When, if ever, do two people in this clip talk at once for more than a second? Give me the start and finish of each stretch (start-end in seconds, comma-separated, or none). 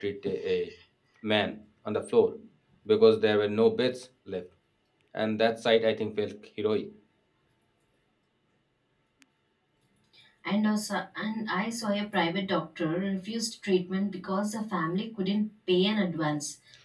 none